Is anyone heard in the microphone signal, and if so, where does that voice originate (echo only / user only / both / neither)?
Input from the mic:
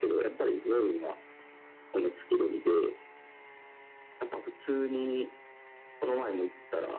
echo only